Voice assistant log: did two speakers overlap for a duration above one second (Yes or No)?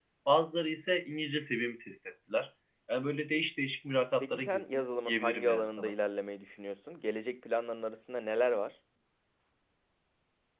Yes